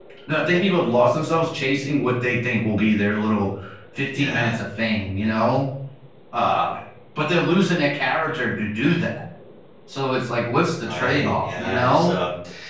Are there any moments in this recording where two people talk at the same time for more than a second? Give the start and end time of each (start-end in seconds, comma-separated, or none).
10.8-12.2